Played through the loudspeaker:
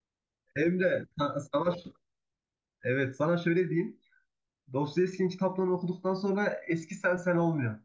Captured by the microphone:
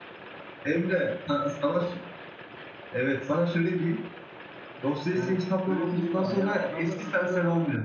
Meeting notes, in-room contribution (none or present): present